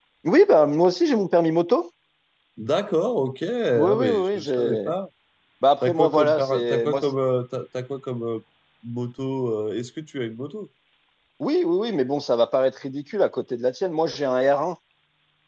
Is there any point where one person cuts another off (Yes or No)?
Yes